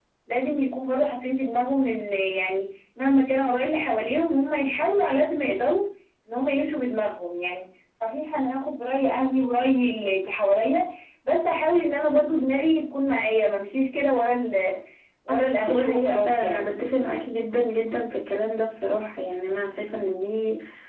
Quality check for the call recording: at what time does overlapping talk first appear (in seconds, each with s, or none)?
15.3 s